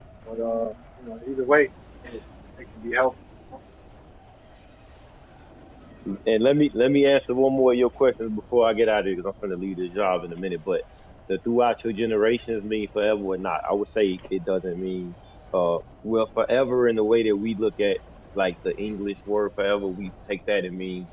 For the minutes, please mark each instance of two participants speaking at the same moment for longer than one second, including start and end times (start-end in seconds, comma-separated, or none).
none